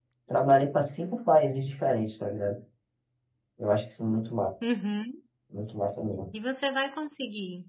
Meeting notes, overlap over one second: none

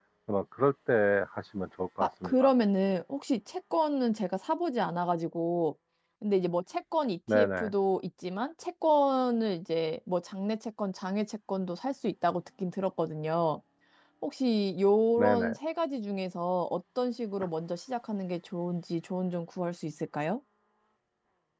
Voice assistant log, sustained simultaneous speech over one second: none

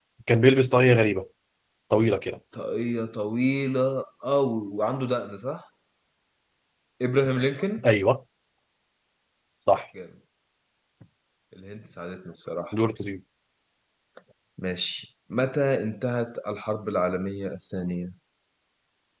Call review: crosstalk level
none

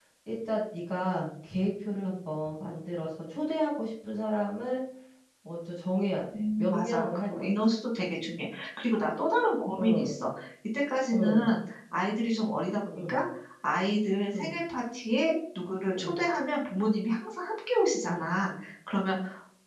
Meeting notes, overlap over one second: present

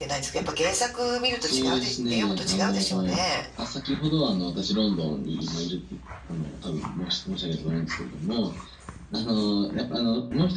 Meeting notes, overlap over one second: present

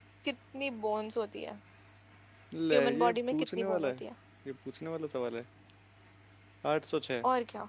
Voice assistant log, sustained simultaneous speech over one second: present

